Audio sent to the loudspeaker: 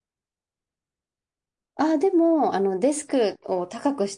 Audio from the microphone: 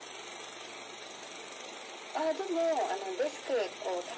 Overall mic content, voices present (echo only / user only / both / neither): echo only